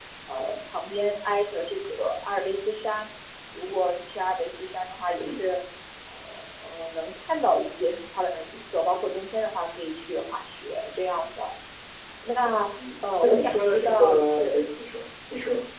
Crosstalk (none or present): present